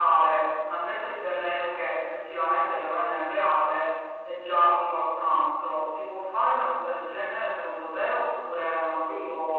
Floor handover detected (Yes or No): Yes